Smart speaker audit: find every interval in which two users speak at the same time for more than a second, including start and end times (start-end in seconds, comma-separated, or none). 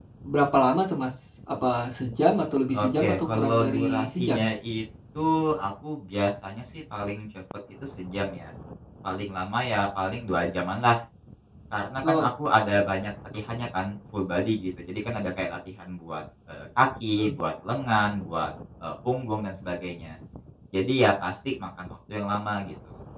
2.8-4.4